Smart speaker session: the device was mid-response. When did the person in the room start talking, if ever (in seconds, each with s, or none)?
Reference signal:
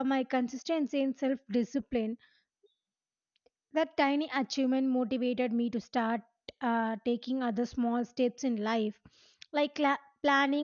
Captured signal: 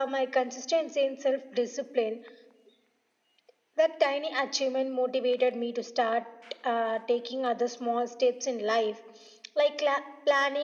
none